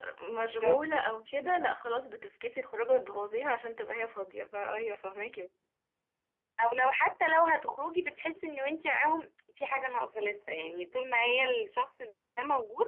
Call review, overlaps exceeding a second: none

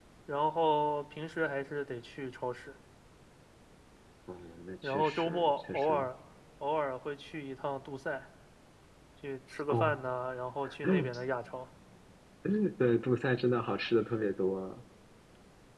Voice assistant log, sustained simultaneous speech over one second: present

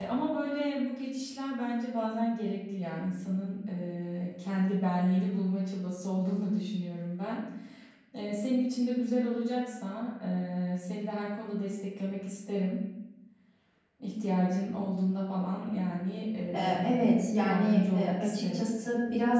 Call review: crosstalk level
present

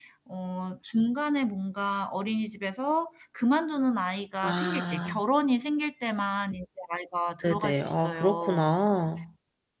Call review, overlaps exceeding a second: present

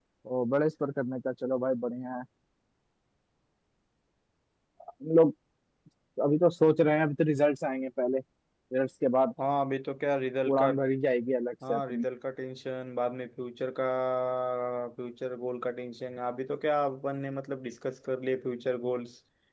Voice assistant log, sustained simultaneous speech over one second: none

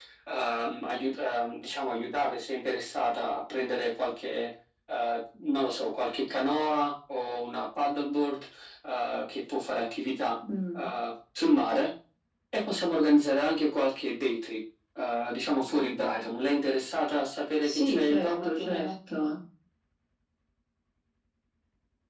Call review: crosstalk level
present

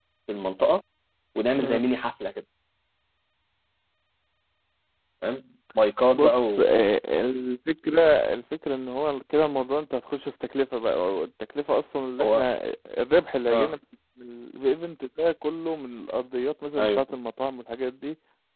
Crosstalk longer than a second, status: none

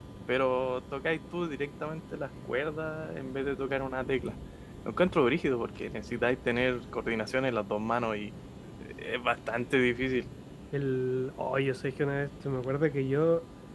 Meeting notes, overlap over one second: none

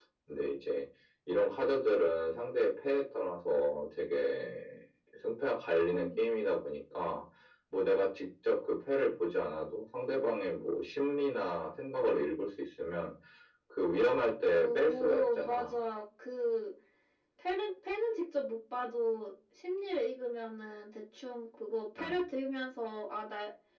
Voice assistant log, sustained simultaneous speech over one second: present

